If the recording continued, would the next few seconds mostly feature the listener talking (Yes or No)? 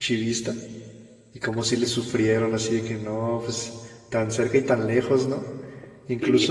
Yes